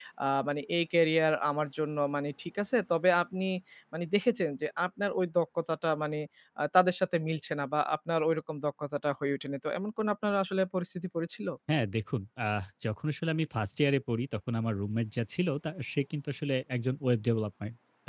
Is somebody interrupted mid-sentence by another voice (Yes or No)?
No